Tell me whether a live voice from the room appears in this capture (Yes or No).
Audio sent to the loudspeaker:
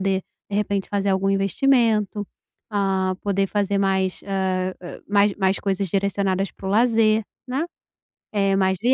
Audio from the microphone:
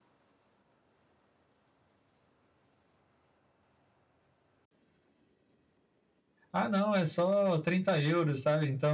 Yes